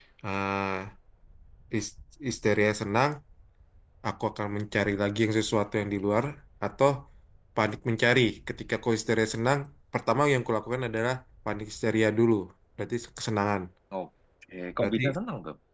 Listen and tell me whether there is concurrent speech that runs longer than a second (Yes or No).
No